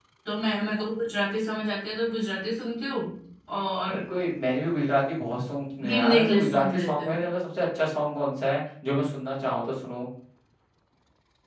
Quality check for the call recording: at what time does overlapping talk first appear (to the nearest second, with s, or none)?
6 s